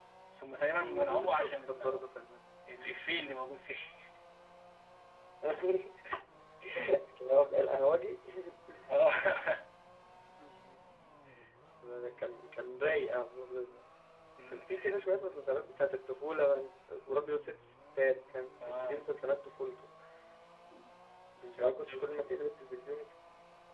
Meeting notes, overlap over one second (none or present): present